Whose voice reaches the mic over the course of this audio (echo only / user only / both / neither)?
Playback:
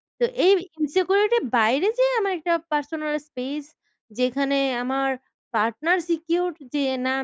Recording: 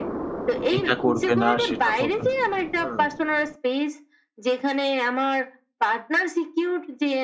both